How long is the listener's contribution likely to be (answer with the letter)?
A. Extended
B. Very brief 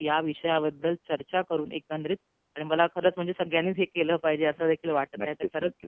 B